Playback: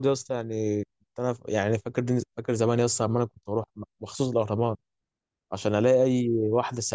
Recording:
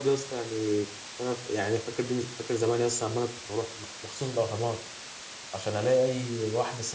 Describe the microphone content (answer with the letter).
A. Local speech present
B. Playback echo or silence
B